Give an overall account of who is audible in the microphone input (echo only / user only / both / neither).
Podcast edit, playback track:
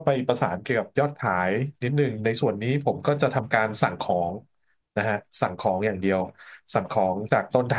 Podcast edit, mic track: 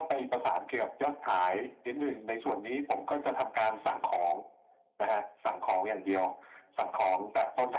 echo only